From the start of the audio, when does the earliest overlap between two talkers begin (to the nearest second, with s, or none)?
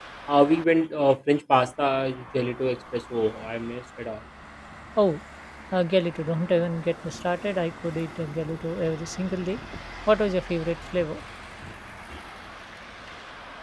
none